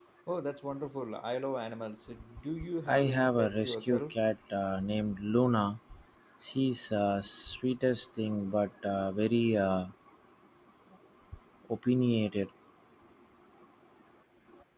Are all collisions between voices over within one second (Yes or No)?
No